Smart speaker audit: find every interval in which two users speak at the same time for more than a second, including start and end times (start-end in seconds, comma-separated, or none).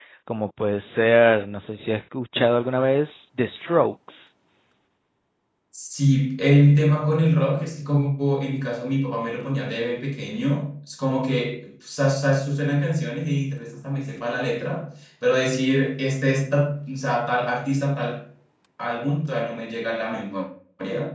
none